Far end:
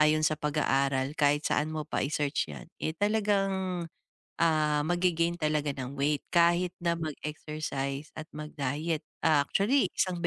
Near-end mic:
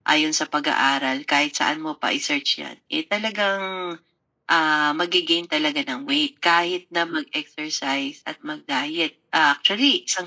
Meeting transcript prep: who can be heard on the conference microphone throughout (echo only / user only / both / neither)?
echo only